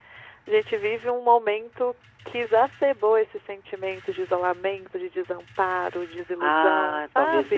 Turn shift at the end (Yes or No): Yes